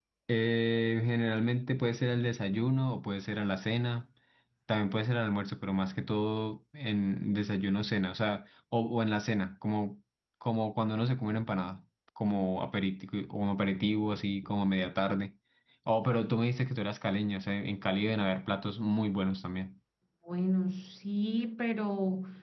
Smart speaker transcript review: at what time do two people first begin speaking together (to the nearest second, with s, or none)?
none